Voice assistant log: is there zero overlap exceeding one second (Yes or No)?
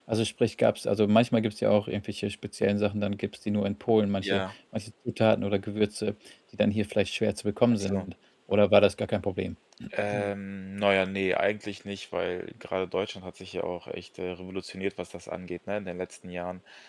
Yes